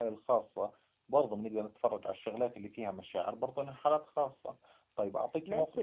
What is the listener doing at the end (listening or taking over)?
taking over